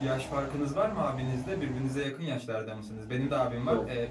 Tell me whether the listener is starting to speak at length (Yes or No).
No